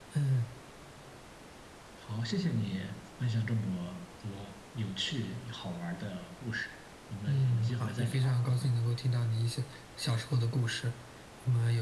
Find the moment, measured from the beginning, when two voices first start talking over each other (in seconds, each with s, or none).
7.3 s